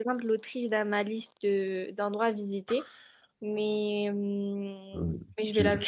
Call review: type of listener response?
taking over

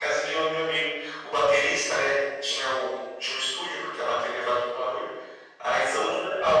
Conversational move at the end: listening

